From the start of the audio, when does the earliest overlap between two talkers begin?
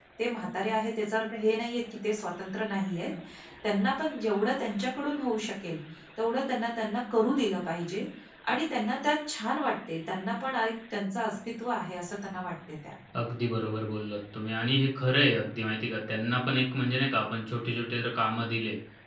none

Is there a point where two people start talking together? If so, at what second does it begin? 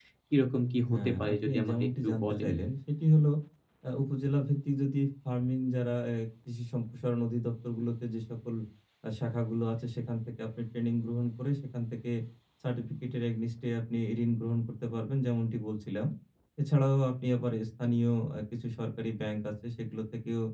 0.9 s

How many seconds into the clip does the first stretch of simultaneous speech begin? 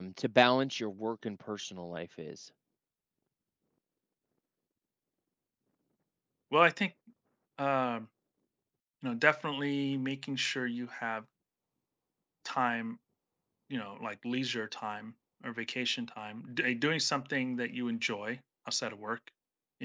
none

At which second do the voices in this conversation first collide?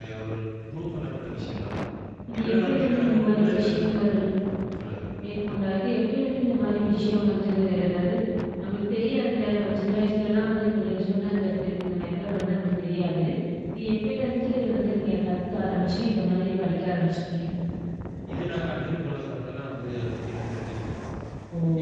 2.4 s

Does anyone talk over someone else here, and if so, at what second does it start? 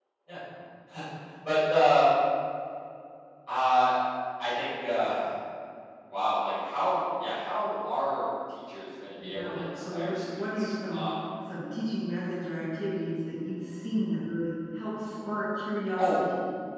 9.2 s

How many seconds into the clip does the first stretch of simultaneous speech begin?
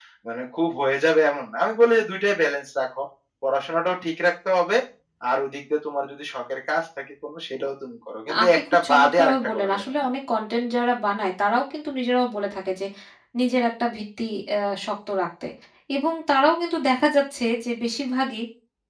8.3 s

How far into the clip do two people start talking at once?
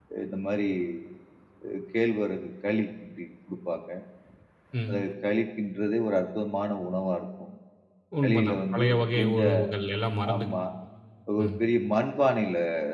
8.2 s

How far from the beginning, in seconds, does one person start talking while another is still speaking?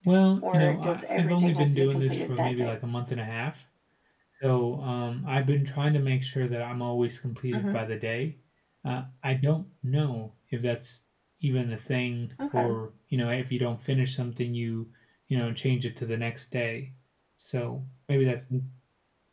0.5 s

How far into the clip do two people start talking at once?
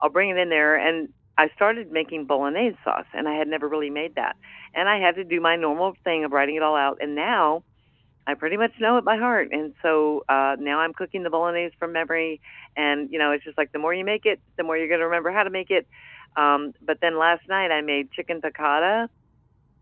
none

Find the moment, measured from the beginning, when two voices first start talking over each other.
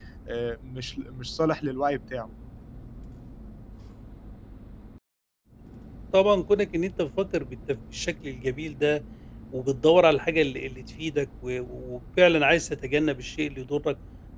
none

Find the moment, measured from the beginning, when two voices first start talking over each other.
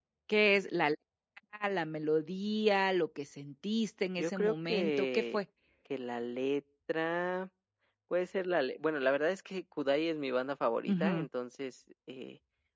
4.2 s

